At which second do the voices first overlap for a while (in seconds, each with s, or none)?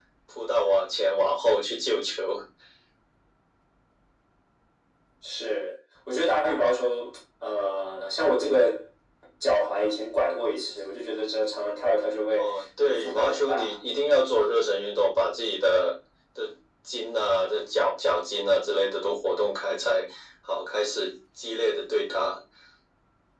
12.3 s